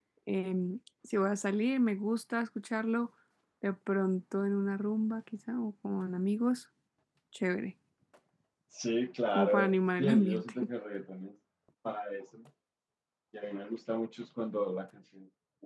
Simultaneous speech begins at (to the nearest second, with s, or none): 9 s